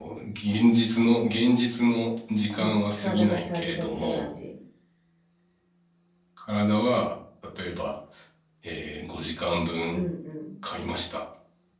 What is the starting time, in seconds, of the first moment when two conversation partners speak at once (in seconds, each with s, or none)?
2.6 s